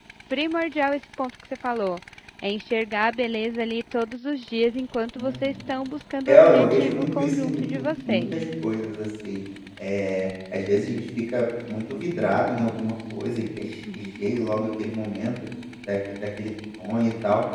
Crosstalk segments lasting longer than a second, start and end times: 6.3-8.3

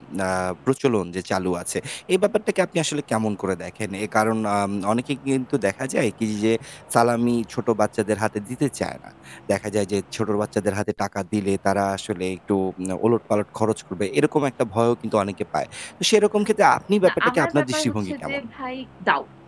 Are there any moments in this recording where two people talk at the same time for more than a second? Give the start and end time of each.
17.1-18.4

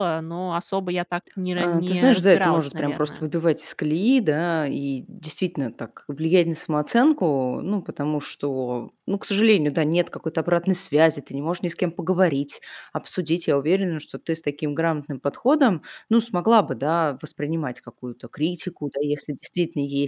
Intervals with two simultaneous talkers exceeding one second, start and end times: 1.6-3.2

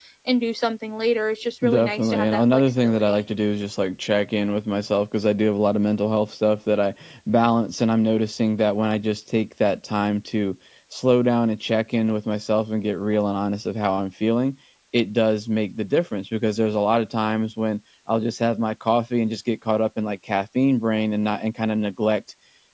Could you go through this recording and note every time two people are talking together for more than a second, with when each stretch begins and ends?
1.7-3.2

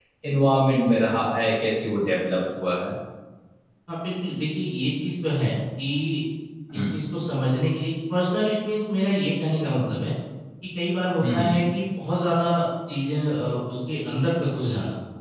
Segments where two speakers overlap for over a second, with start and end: none

